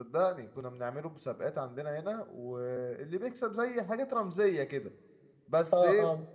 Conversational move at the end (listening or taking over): taking over